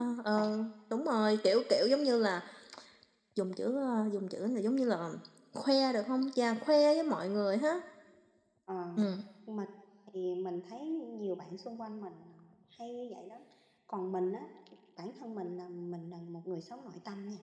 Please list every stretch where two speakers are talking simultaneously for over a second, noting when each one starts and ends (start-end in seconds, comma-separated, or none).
none